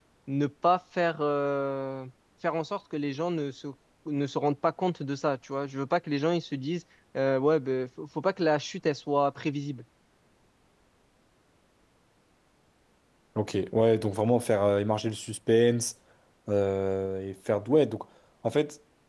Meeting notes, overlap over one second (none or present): none